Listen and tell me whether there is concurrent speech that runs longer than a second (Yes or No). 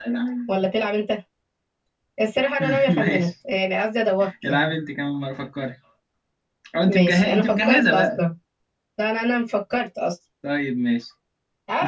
Yes